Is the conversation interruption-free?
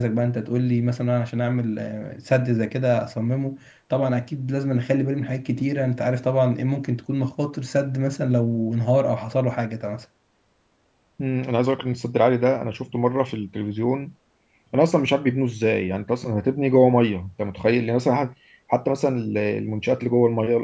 Yes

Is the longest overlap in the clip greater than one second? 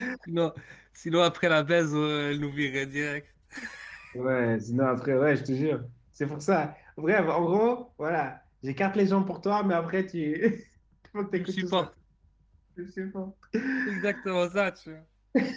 No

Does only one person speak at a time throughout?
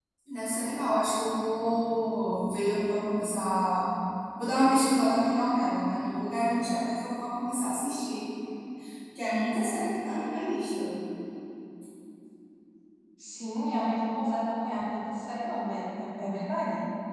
Yes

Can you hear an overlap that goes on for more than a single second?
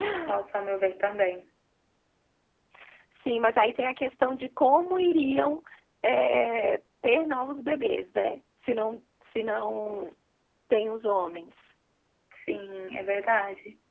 No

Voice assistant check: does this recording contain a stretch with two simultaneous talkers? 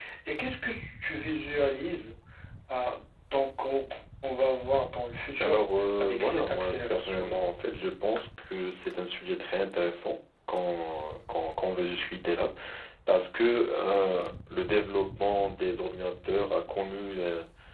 Yes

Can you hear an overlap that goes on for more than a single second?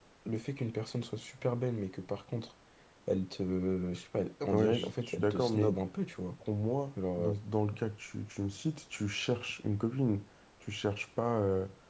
Yes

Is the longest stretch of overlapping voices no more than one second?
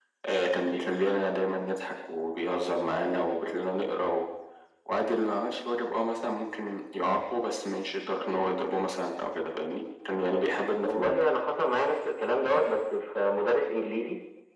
Yes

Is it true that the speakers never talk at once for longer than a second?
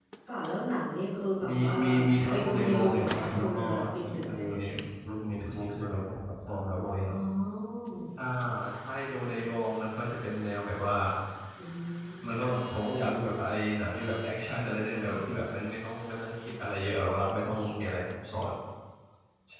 No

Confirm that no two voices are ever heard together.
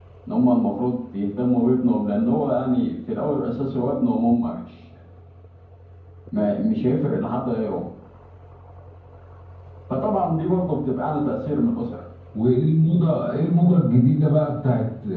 Yes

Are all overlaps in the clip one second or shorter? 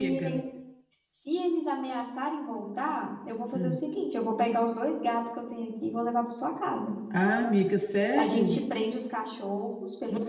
Yes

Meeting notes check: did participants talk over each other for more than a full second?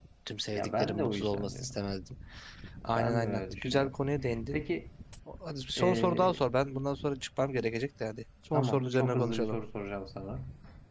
Yes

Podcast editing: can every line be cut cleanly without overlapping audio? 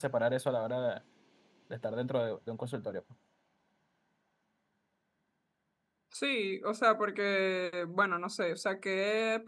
Yes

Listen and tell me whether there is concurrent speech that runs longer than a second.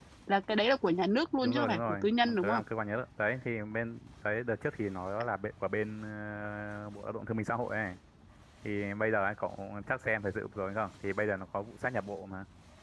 Yes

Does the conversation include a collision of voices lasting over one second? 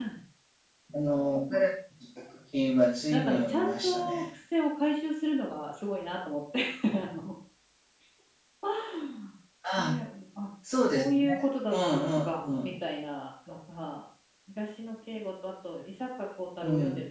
Yes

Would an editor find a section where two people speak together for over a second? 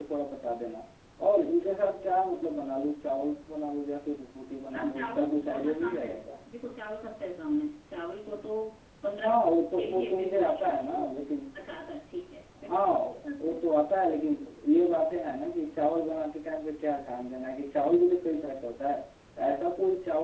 Yes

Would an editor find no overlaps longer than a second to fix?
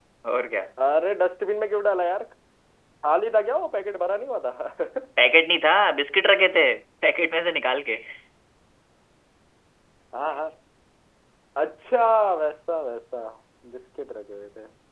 Yes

